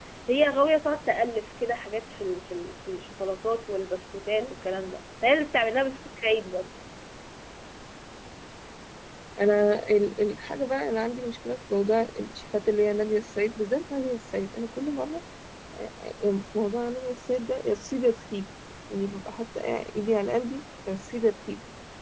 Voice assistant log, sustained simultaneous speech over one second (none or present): none